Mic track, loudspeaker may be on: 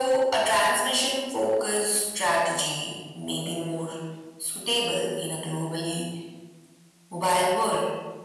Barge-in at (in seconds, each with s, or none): none